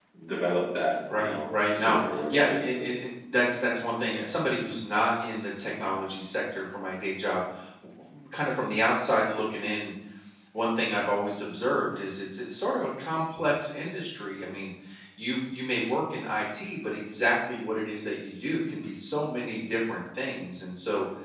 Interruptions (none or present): present